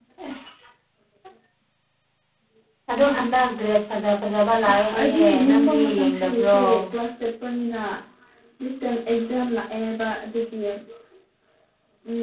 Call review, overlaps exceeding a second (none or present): present